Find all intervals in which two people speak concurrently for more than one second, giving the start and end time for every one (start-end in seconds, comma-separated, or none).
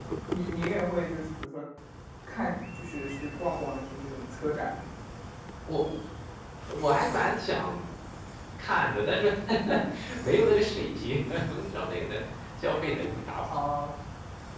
none